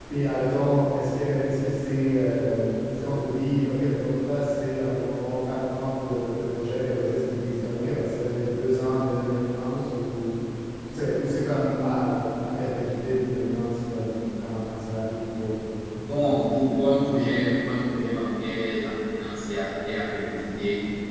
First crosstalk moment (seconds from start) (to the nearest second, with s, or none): none